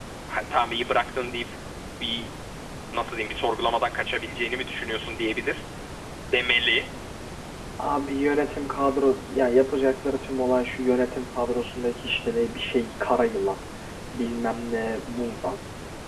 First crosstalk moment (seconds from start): none

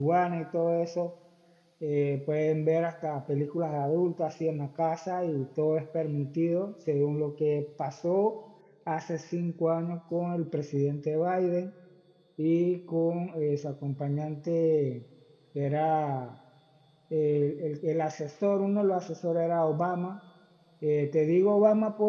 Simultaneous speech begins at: none

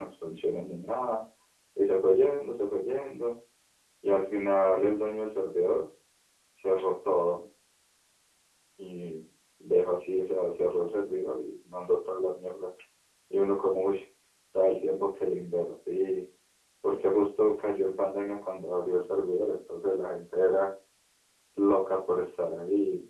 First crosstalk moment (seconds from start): none

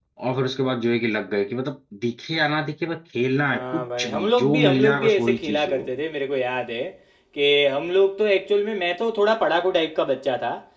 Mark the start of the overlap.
3 s

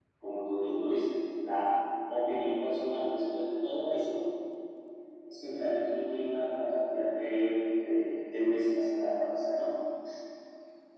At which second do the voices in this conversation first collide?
none

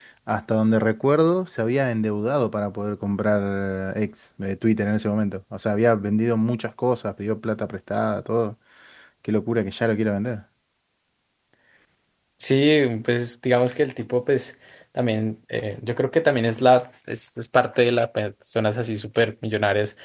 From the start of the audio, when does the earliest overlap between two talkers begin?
none

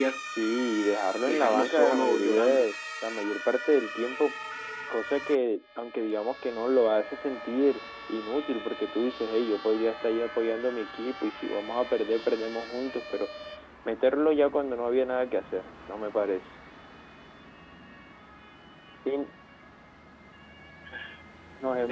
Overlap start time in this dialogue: 1 s

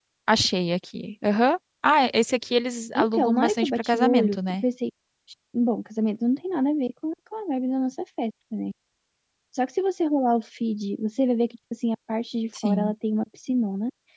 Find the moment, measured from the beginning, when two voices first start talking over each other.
3 s

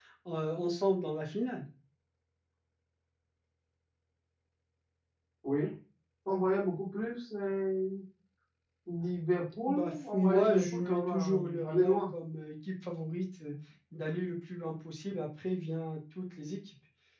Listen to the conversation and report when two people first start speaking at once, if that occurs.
10 s

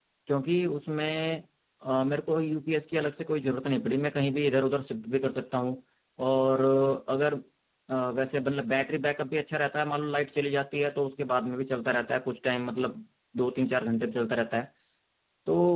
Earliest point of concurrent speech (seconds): none

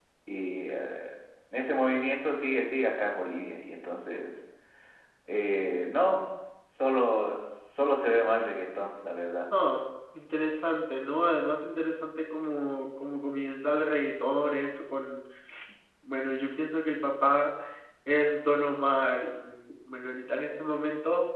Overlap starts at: none

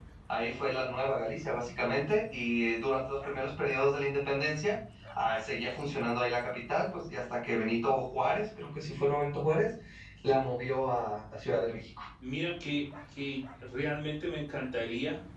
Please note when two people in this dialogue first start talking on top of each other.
none

